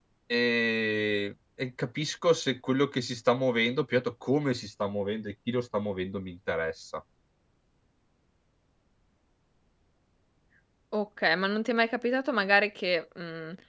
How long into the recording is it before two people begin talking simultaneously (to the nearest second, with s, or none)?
none